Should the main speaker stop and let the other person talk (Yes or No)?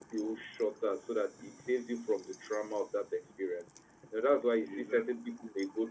No